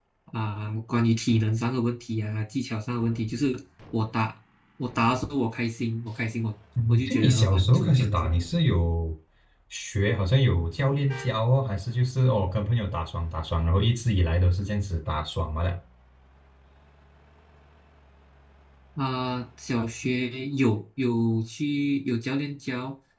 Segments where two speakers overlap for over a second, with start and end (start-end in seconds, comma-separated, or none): 6.9-8.3